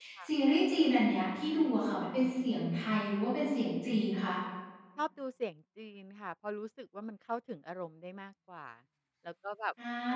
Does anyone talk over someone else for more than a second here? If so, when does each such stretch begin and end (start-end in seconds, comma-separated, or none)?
none